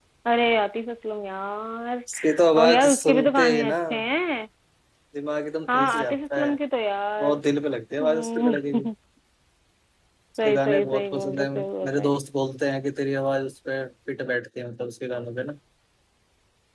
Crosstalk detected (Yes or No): Yes